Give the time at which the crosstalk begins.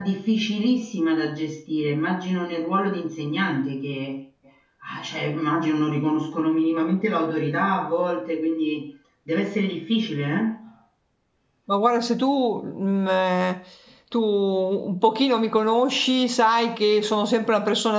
none

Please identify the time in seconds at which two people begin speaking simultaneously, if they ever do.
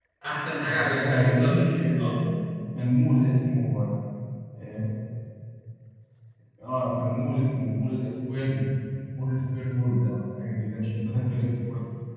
0.7 s

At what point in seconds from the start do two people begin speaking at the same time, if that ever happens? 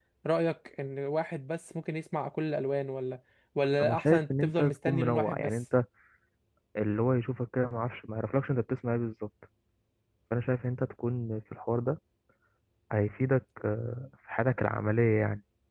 3.8 s

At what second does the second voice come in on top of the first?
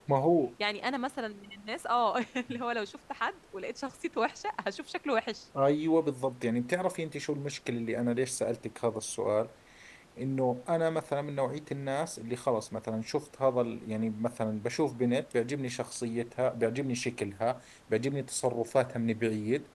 none

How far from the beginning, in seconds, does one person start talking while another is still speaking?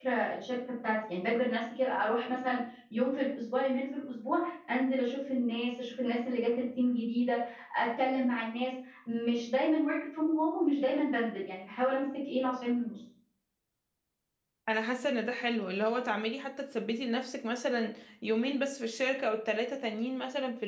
none

